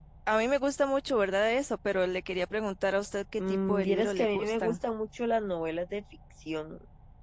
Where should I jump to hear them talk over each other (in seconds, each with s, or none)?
3.4 s